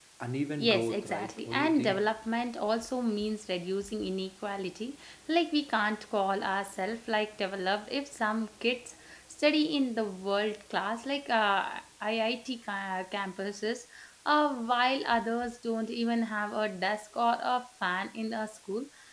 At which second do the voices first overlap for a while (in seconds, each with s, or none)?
0.6 s